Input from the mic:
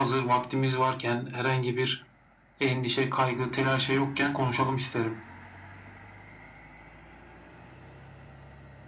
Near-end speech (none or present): none